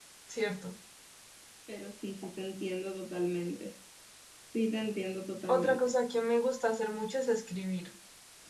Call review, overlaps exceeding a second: none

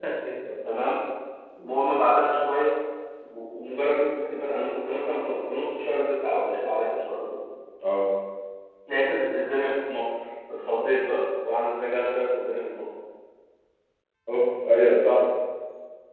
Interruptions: none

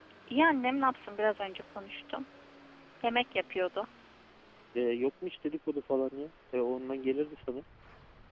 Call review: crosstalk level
none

